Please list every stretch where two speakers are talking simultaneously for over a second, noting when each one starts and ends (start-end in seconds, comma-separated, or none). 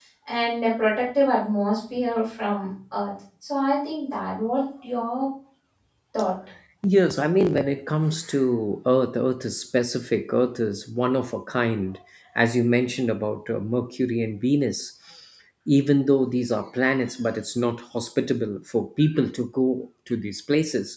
none